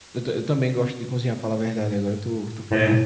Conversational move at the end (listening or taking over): listening